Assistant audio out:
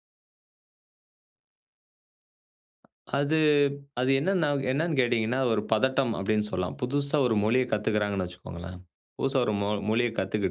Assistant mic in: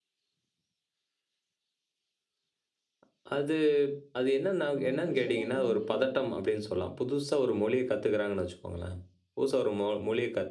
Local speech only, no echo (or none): ஒ ஒரு சிலர் வந்து